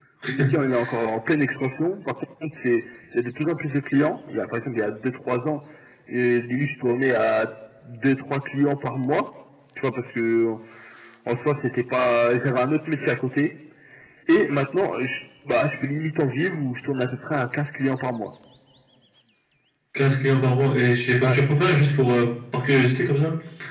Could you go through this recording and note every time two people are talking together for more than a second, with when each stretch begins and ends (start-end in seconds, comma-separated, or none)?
none